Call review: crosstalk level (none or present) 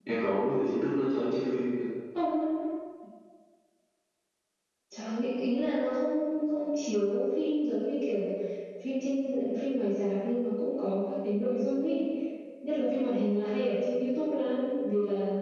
none